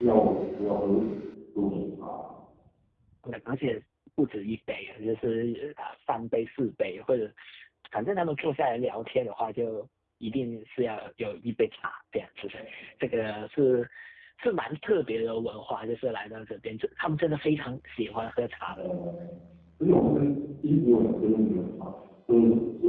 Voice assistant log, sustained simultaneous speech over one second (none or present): none